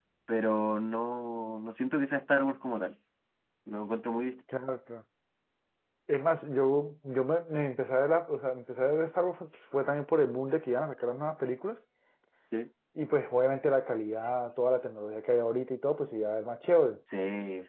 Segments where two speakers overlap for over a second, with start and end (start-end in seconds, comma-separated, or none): none